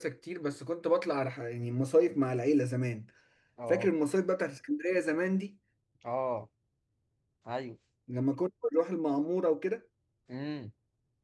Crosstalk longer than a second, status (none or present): none